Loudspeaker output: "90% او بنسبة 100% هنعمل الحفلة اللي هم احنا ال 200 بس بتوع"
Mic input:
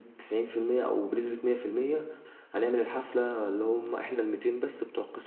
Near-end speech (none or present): none